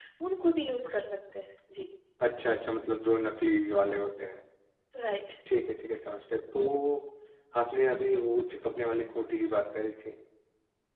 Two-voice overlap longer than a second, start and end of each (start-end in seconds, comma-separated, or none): none